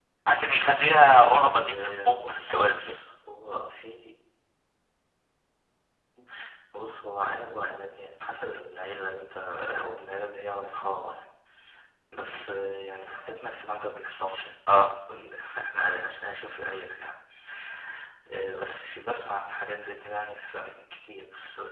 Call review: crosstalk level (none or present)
present